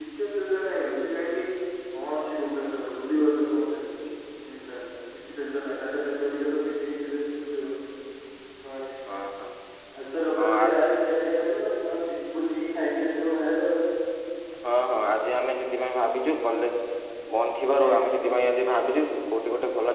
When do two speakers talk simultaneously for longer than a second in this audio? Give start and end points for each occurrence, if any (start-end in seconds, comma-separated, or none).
none